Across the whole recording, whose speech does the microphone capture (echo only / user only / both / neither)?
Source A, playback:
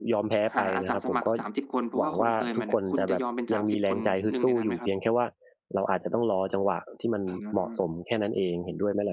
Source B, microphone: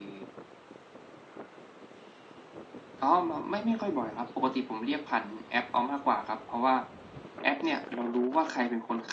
user only